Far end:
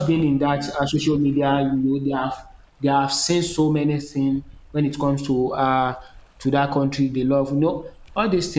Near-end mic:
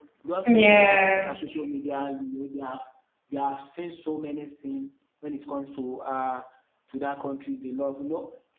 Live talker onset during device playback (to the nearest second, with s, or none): 0 s